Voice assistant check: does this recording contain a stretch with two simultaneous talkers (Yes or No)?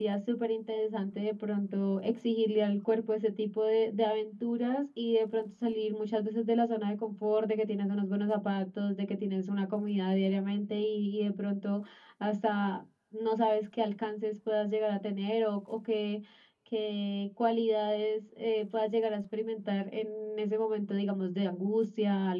No